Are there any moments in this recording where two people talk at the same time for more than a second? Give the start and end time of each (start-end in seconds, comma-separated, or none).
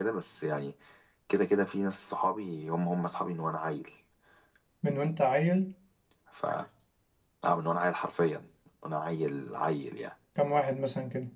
none